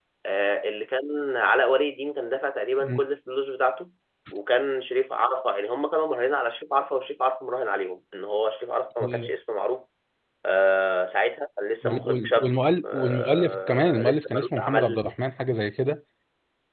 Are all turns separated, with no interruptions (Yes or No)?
No